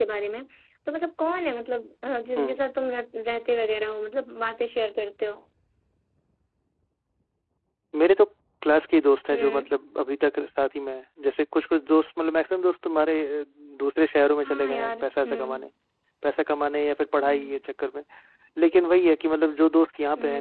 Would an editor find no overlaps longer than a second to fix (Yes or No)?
No